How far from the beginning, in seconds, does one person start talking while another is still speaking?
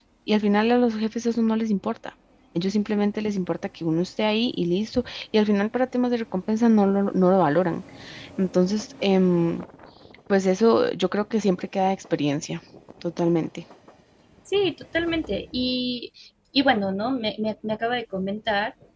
none

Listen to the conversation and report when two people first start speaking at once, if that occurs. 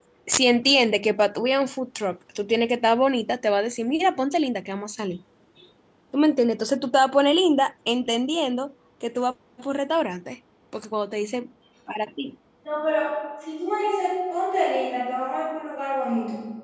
none

